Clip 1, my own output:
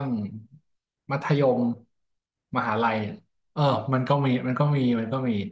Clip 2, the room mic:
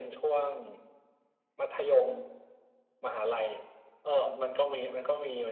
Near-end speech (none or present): present